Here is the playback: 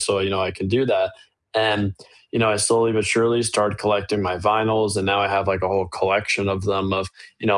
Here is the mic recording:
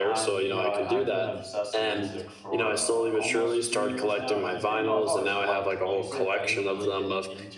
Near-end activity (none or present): present